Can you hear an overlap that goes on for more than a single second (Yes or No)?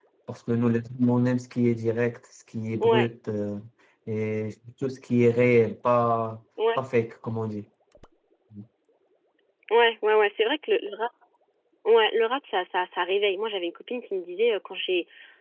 No